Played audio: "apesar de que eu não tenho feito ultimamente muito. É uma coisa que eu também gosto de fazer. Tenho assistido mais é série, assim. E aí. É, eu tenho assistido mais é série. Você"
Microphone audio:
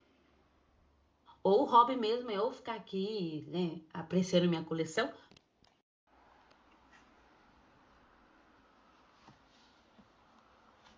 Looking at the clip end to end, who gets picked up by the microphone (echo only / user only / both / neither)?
user only